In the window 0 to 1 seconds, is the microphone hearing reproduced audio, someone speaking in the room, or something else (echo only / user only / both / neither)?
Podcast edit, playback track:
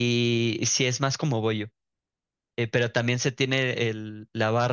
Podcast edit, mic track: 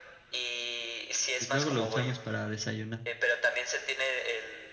echo only